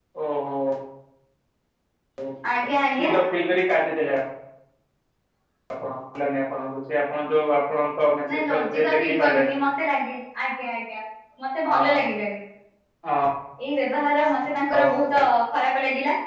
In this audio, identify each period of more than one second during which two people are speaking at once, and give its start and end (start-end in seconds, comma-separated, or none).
8.3-9.5